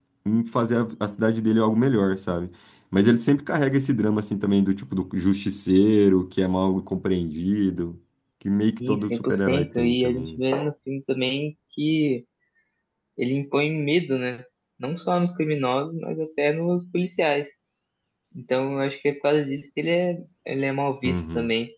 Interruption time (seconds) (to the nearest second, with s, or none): 9 s